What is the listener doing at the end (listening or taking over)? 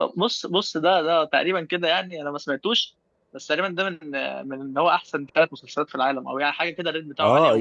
taking over